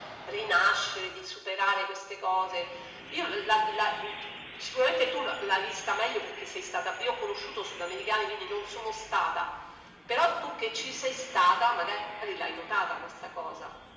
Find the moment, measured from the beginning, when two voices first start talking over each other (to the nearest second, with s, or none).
none